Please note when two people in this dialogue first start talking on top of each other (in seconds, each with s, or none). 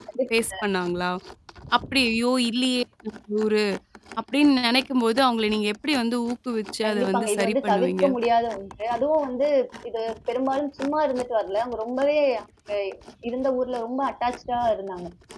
6.8 s